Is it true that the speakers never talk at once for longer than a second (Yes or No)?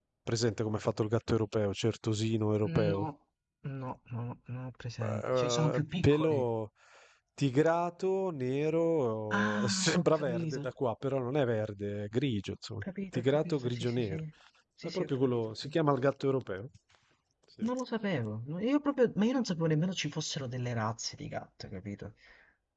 No